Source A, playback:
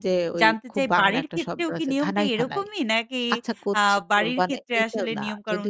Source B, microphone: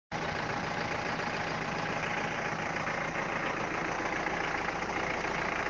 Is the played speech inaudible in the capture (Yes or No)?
Yes